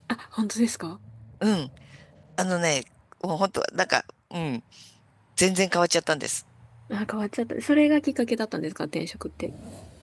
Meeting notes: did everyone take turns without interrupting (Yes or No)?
Yes